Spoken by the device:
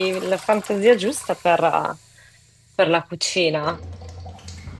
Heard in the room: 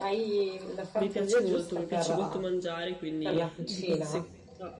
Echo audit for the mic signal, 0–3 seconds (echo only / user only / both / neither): both